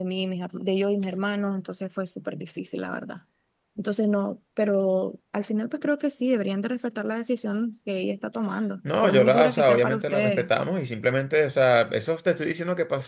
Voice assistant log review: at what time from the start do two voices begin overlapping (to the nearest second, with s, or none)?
9 s